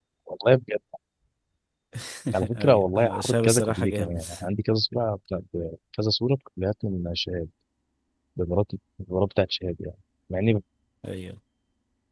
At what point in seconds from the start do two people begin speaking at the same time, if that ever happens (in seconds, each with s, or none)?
2.5 s